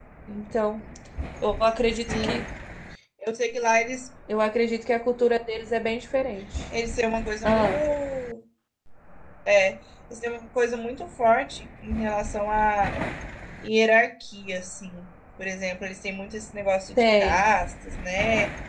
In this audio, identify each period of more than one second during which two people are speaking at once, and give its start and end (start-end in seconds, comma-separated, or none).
none